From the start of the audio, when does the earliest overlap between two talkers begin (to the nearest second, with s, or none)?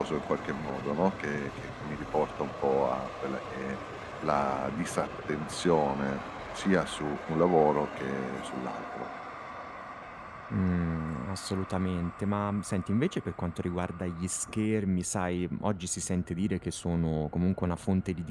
none